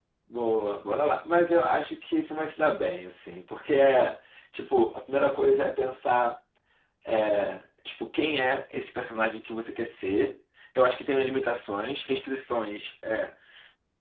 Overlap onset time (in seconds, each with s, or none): none